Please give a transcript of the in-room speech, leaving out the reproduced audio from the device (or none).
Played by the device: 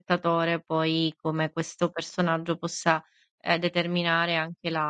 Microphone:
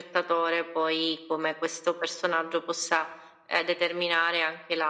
none